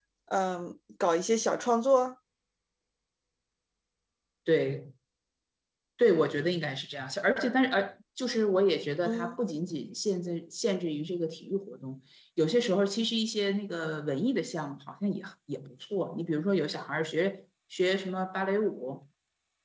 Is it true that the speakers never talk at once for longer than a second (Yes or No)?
Yes